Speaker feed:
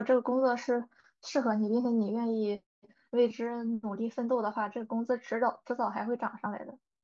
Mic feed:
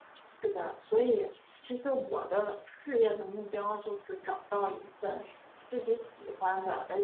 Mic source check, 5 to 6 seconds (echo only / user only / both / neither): user only